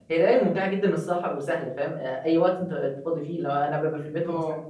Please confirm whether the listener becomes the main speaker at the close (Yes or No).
No